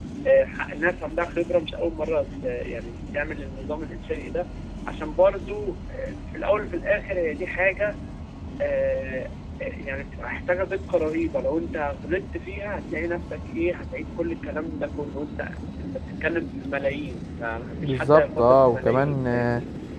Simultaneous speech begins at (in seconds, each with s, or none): 17.8 s